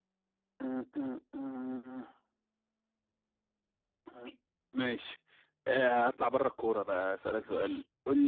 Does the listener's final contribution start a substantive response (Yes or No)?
No